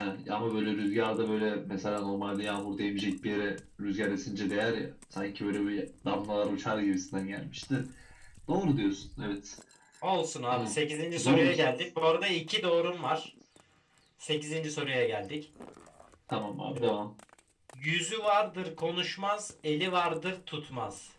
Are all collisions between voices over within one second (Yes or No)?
Yes